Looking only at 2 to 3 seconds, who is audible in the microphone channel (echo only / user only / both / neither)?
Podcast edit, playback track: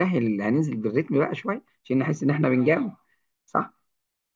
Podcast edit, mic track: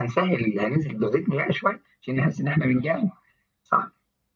echo only